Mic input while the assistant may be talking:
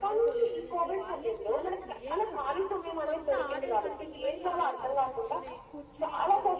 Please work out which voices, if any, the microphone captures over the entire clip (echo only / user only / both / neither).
both